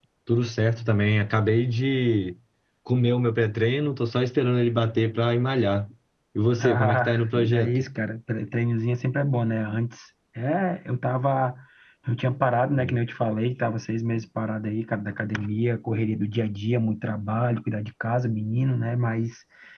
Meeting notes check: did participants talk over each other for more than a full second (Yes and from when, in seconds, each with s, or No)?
Yes, from 6.6 s